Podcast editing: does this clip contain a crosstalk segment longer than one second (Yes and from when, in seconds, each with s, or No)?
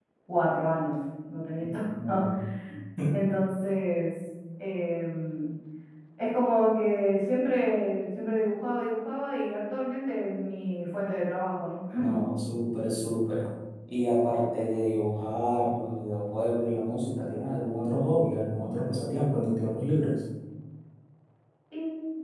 No